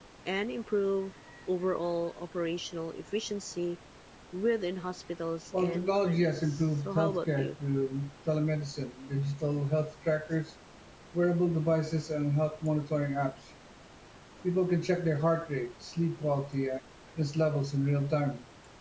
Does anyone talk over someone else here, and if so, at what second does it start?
5.5 s

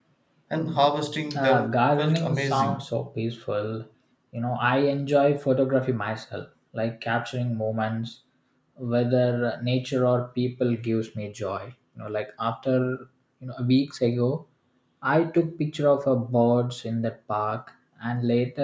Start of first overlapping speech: 1.3 s

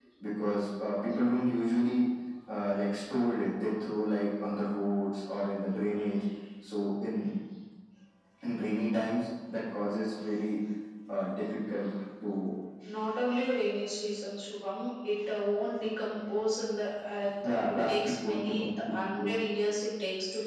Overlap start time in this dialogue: 17.4 s

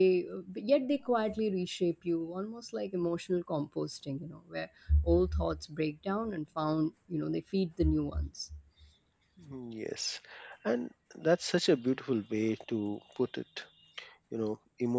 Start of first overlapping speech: none

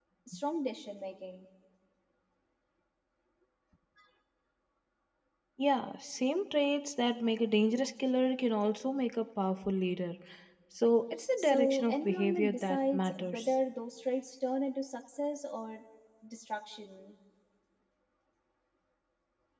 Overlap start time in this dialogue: 11.4 s

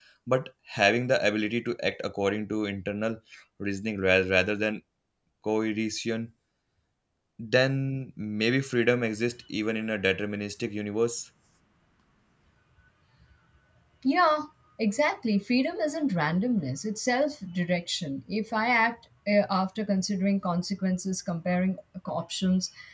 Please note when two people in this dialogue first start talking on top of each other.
none

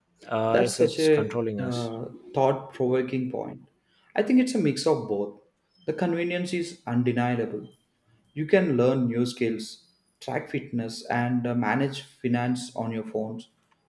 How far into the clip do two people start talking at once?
0.5 s

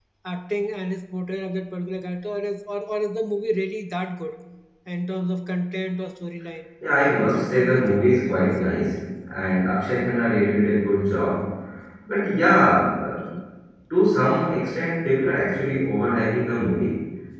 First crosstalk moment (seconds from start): 7.0 s

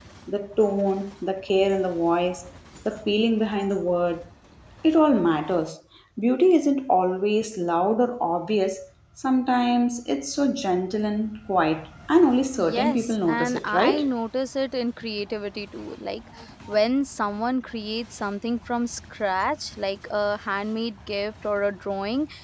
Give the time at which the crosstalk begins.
12.6 s

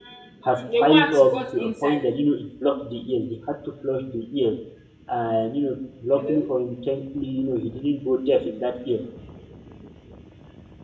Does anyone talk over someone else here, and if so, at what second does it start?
0.5 s

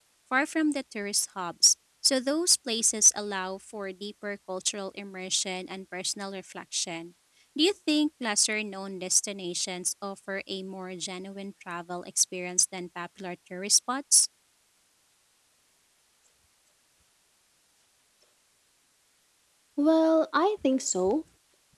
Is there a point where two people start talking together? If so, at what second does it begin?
none

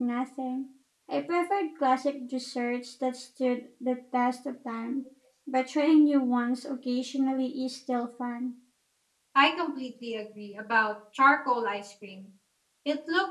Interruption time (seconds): none

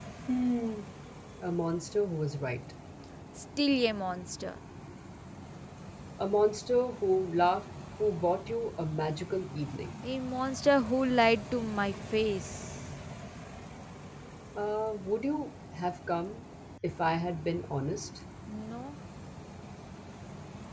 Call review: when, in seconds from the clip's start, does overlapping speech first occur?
none

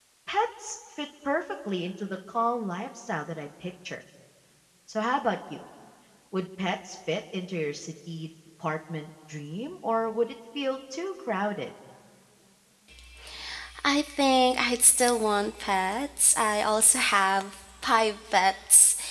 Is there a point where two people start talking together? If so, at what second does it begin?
none

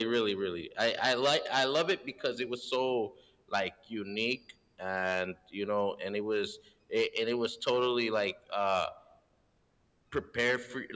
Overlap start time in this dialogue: none

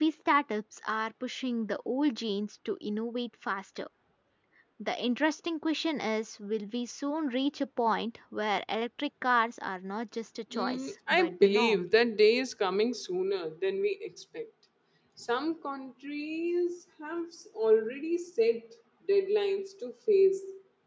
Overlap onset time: 10.5 s

